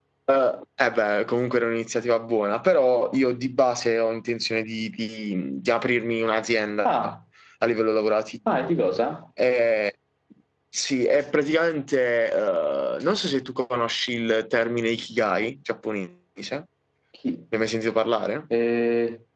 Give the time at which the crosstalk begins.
none

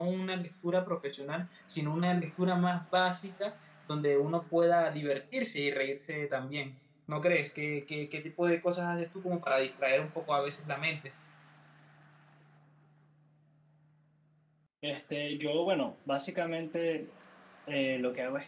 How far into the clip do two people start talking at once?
none

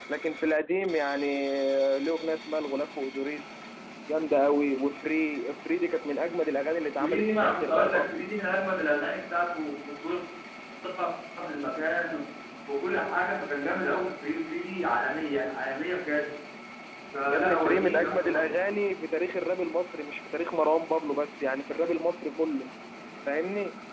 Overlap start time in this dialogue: 7.0 s

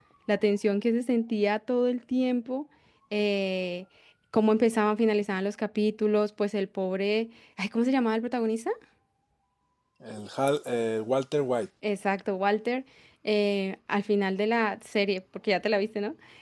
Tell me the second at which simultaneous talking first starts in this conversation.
none

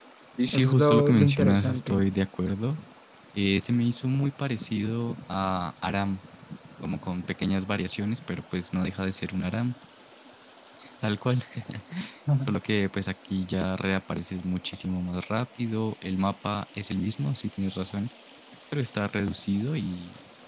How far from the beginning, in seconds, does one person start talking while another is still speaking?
0.5 s

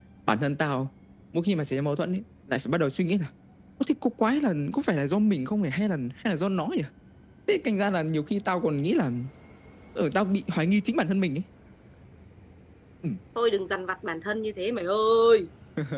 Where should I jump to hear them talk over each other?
none

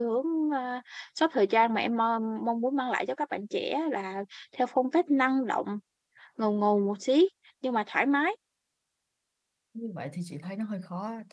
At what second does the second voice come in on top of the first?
none

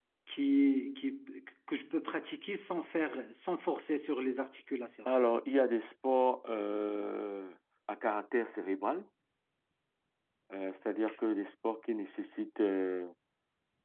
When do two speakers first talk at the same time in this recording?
none

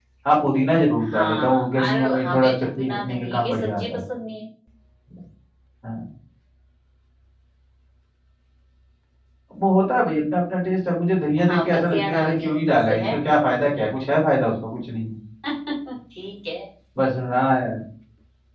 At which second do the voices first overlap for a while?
1.1 s

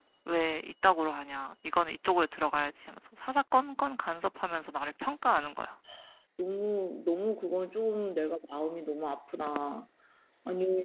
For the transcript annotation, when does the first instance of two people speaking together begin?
none

